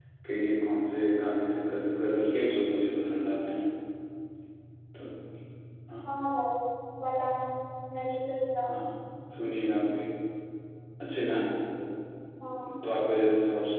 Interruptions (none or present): none